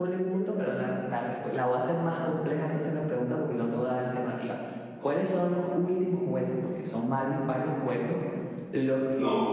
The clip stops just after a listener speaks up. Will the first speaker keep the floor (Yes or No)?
Yes